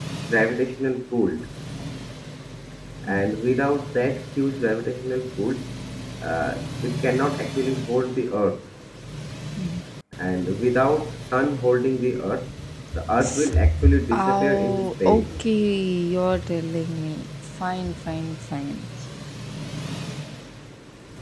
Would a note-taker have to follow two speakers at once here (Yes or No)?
Yes